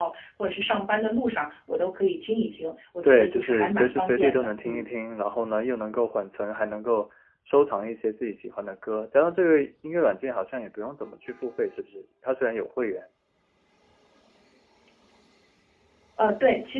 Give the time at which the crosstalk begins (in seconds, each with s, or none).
3.0 s